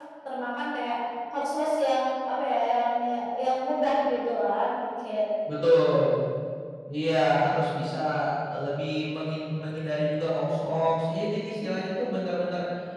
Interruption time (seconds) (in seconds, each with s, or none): none